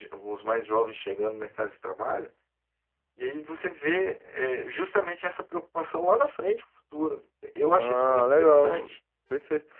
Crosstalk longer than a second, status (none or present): present